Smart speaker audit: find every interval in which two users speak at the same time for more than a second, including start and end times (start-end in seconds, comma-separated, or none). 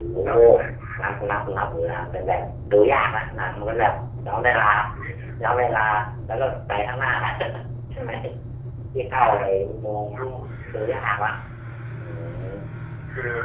none